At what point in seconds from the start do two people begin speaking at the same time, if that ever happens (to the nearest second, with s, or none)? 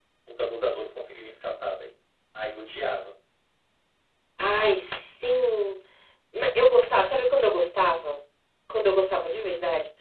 none